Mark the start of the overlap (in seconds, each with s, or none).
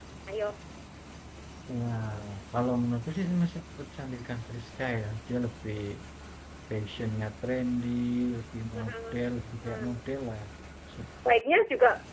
8.7 s